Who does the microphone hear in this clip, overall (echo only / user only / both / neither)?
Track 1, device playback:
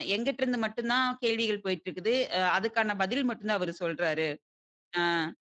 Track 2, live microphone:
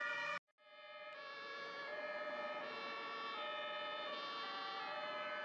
neither